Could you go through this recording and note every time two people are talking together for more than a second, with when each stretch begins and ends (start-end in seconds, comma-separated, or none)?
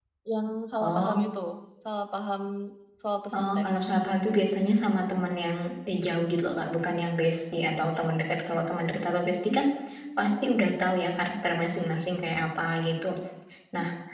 none